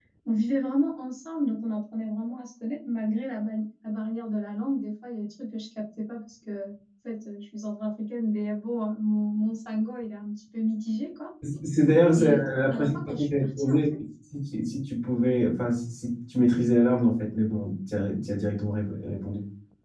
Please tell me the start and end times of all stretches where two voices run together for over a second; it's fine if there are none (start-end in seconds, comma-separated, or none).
12.1-13.9